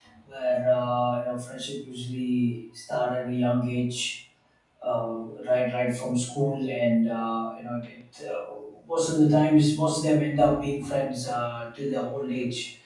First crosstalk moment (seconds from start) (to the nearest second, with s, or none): none